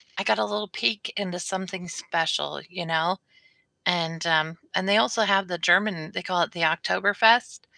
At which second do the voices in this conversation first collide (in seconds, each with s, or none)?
none